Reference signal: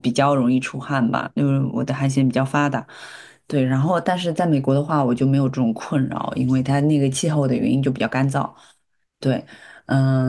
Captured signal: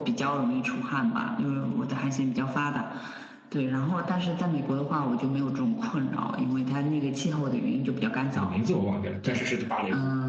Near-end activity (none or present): present